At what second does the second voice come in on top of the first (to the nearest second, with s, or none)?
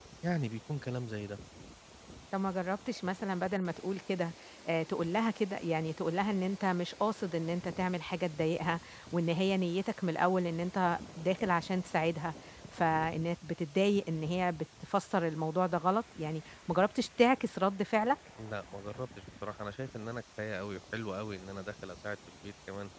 none